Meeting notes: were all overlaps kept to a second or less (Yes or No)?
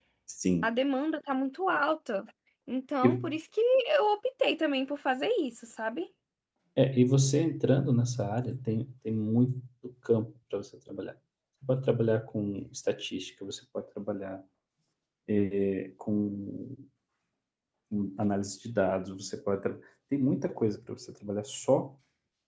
Yes